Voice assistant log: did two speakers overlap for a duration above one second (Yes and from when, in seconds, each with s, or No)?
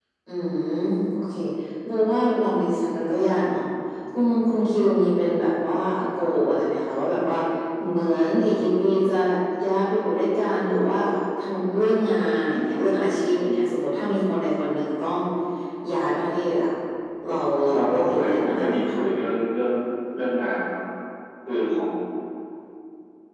Yes, from 17.7 s